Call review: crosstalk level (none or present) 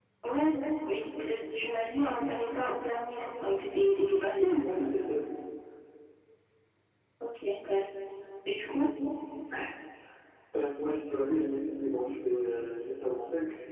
none